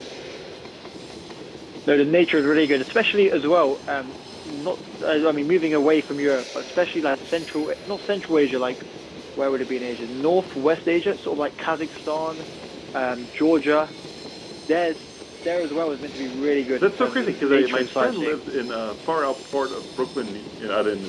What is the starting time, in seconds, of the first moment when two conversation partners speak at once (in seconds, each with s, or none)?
16.8 s